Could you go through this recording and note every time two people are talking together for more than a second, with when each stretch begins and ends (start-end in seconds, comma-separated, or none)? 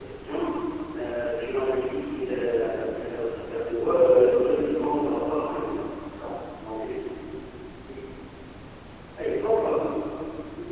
3.9-5.3